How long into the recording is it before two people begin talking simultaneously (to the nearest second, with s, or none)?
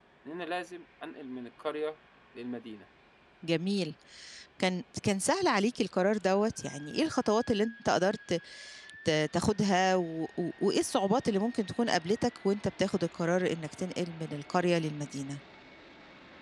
none